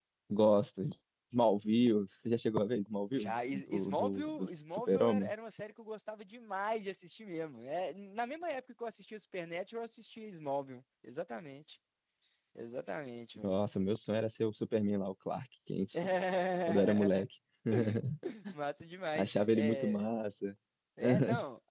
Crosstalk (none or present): present